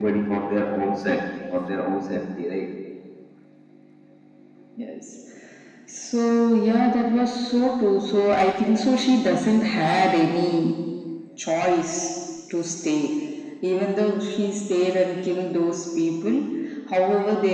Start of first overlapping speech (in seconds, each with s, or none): none